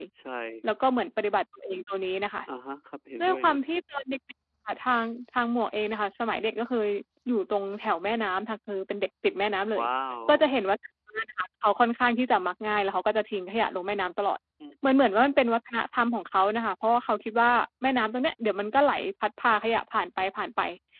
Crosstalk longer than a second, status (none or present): none